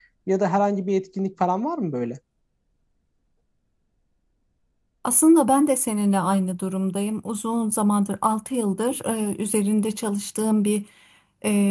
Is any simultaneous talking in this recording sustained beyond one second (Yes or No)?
No